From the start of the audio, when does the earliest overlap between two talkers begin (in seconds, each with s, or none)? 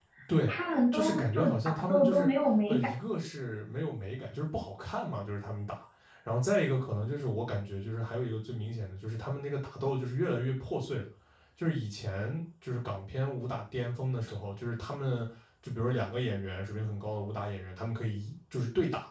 0.9 s